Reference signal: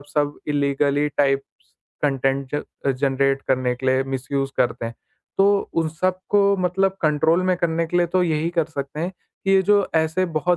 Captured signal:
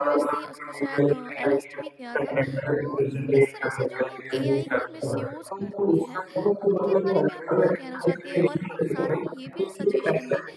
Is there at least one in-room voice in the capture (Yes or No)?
Yes